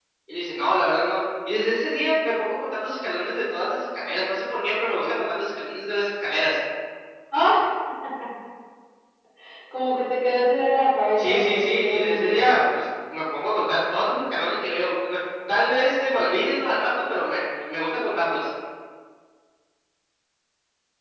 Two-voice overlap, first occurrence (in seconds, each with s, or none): 11.2 s